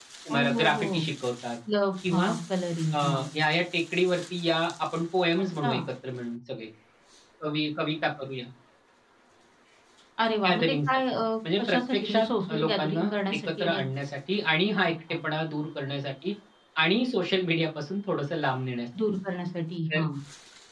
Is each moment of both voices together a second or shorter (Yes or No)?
No